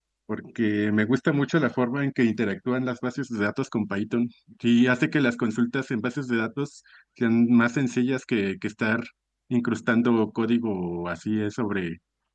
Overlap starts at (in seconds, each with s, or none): none